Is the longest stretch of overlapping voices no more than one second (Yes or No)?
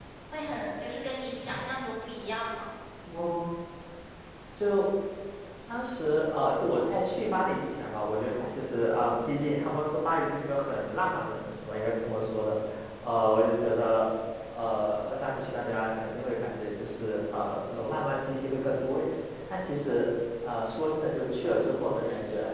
Yes